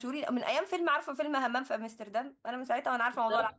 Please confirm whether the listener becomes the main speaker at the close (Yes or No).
Yes